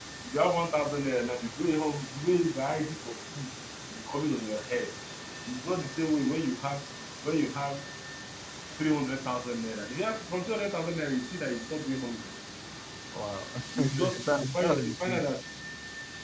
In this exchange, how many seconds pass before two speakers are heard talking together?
13.8 s

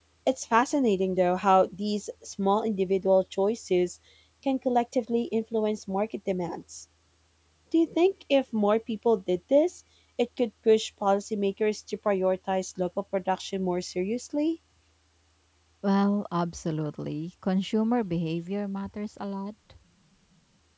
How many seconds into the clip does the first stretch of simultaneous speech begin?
none

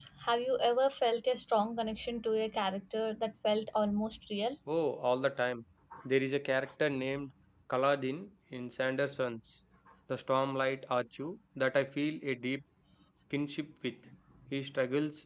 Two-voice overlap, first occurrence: none

